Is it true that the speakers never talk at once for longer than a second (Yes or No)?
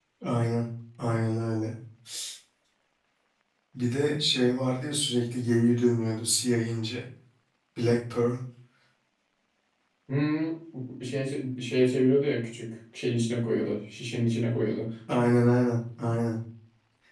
Yes